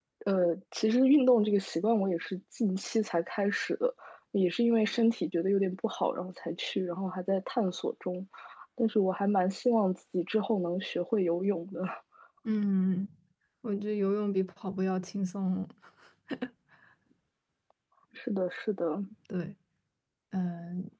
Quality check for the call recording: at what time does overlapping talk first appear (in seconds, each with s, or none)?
none